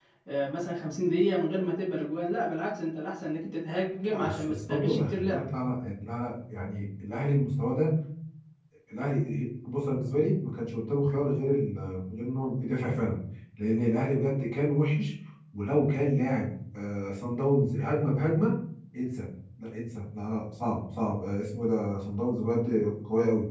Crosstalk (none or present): present